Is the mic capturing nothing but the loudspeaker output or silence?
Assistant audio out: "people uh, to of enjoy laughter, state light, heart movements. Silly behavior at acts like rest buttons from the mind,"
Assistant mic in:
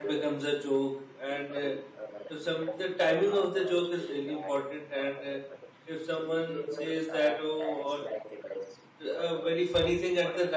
No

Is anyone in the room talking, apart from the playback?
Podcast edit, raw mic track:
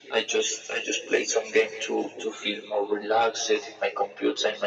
No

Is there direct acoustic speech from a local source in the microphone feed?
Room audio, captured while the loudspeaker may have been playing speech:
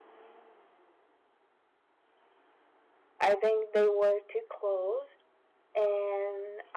Yes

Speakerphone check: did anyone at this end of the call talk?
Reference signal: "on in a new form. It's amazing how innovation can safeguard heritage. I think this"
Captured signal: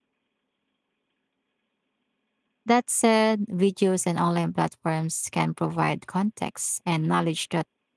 Yes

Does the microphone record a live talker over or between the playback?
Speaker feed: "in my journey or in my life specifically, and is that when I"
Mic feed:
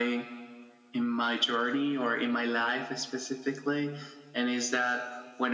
No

